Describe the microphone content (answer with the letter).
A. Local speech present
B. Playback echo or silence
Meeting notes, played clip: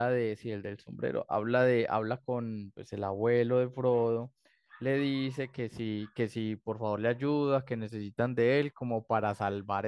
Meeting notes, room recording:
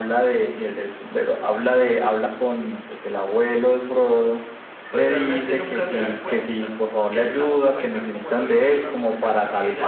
A